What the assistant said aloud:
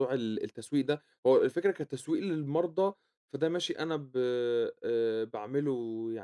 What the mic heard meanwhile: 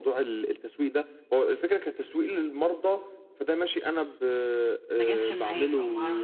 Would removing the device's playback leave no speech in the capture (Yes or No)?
No